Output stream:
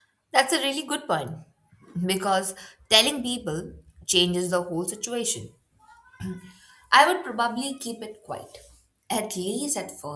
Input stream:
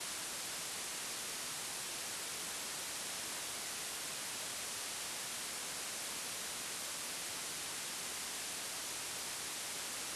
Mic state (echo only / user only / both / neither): neither